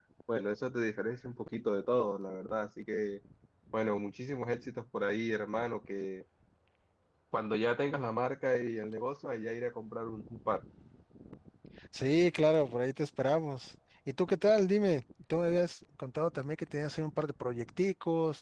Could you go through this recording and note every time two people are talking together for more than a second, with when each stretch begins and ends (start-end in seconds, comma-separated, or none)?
none